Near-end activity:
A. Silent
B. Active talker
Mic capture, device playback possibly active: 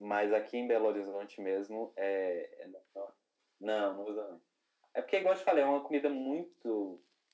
A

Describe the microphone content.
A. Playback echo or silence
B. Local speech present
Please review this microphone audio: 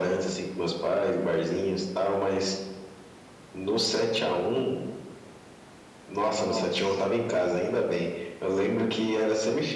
B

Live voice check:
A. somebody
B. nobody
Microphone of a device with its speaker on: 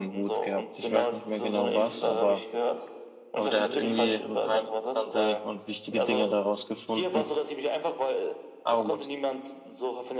A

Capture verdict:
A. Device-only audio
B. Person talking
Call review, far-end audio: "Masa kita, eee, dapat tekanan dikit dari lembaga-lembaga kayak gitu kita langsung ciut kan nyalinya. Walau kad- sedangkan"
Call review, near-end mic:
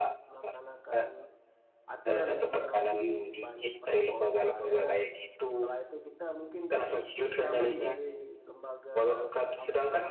B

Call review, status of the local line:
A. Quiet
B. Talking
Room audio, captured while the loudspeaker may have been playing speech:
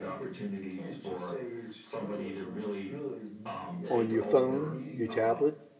B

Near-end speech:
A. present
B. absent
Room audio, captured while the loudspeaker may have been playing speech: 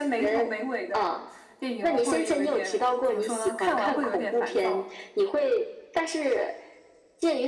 B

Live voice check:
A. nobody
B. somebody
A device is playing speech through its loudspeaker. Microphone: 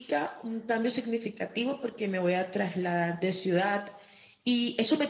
A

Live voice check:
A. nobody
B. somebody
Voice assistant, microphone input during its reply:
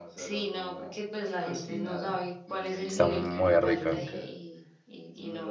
B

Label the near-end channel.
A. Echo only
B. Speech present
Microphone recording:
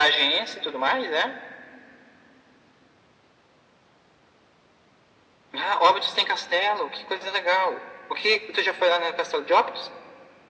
A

